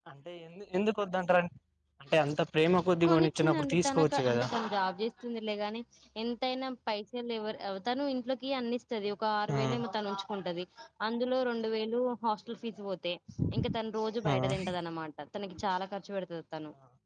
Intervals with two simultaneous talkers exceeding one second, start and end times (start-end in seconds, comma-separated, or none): 3.0-4.5